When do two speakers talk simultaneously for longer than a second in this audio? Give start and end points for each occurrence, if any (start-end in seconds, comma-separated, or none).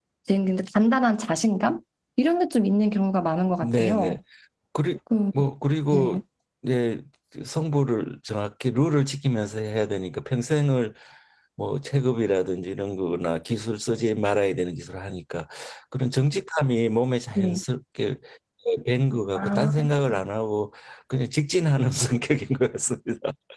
none